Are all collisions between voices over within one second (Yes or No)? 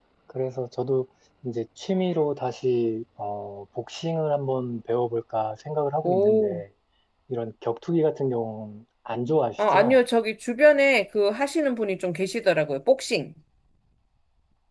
Yes